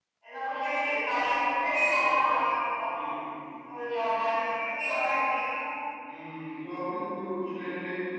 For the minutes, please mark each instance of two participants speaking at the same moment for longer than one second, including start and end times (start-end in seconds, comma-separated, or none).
none